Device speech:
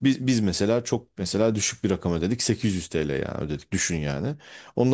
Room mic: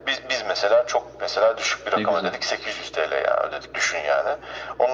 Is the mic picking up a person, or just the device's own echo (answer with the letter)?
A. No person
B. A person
B